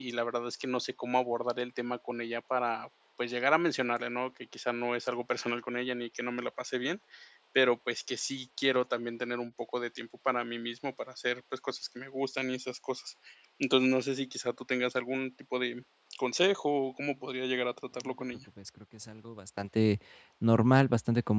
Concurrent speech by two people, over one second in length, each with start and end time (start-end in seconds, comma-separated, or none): none